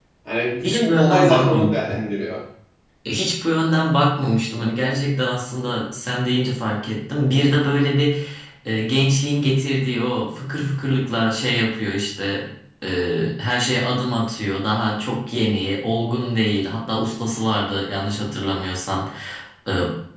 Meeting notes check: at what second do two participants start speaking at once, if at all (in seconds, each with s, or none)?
0.6 s